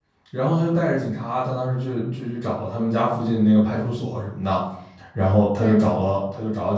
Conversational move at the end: listening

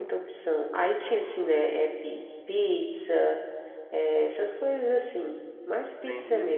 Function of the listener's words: taking over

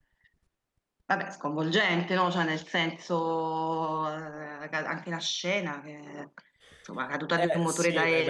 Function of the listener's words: taking over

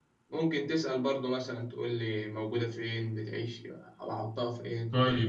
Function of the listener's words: taking over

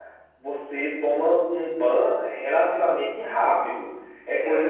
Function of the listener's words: listening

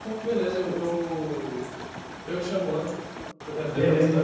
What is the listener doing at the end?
taking over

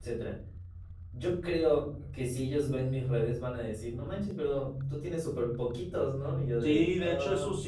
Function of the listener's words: taking over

